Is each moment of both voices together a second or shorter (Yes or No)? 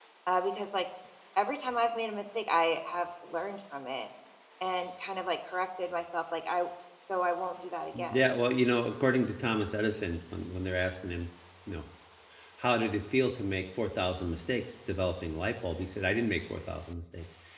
Yes